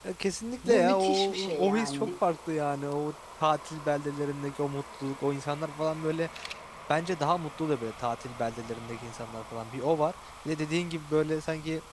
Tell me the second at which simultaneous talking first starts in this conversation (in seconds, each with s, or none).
0.6 s